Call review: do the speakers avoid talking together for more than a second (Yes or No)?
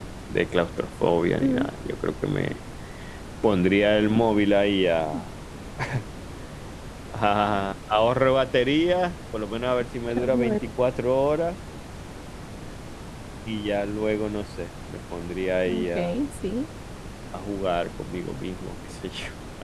Yes